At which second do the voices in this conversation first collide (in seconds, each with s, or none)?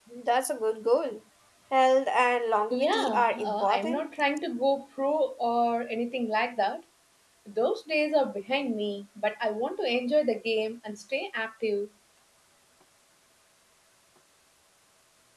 2.7 s